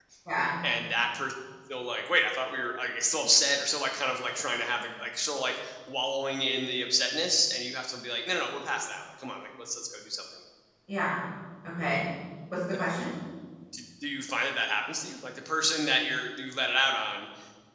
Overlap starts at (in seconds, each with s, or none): none